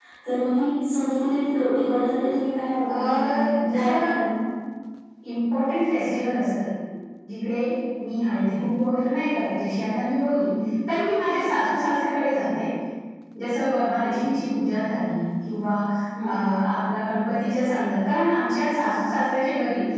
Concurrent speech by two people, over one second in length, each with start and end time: 3.0-4.2

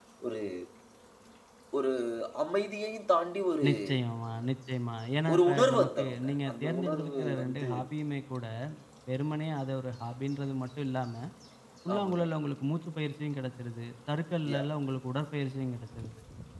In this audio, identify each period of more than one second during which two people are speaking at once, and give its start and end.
5.3-7.7

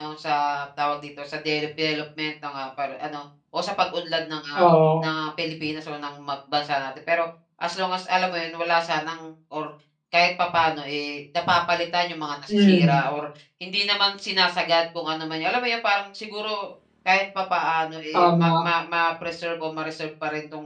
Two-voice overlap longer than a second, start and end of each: none

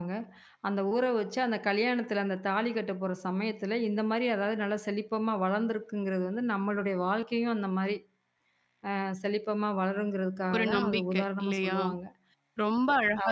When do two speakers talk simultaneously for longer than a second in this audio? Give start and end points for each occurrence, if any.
10.5-11.8

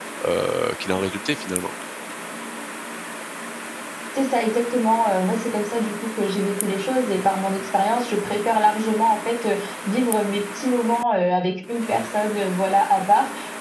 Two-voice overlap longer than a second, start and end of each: none

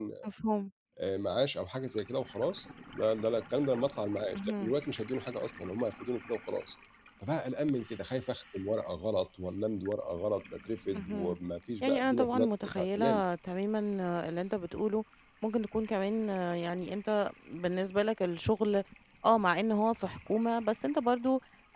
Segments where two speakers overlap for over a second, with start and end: 11.8-13.2

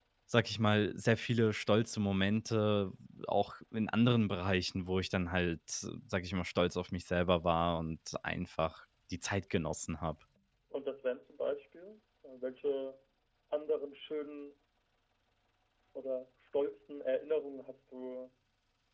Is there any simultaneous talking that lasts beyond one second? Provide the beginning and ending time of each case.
none

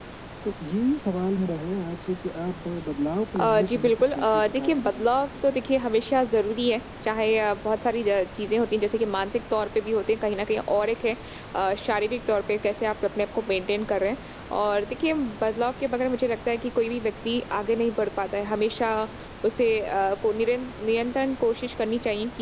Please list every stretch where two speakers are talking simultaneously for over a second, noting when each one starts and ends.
3.4-5.2

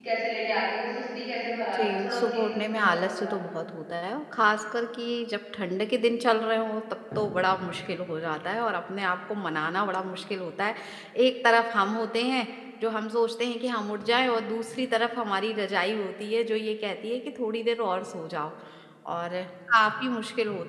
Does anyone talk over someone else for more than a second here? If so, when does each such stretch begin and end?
1.7-3.3

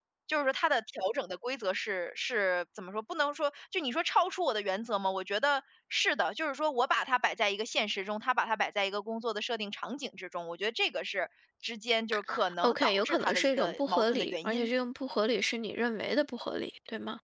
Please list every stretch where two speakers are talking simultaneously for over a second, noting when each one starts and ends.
12.6-14.7

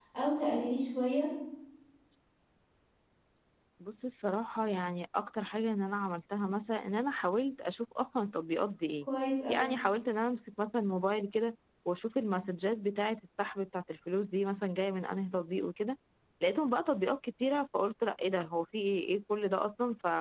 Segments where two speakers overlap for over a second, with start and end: none

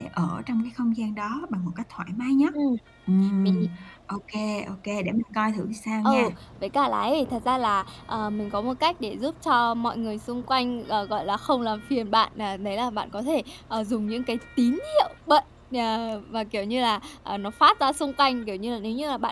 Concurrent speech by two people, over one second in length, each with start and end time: none

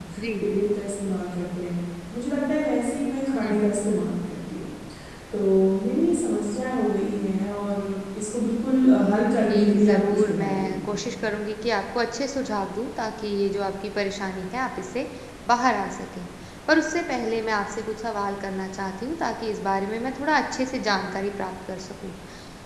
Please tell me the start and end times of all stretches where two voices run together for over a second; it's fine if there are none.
9.4-10.7

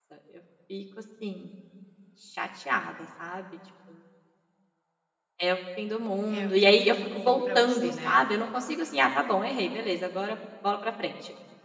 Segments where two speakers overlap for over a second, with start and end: 6.4-8.2

